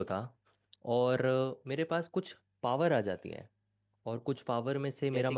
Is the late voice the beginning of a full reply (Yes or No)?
No